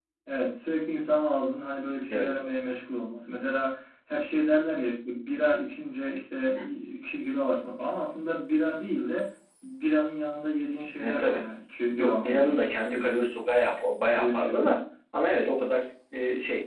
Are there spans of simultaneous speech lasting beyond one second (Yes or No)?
Yes